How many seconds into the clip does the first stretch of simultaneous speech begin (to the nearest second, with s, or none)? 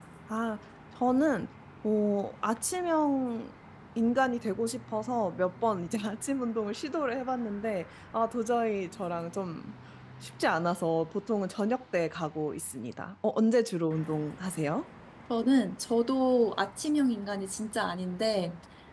none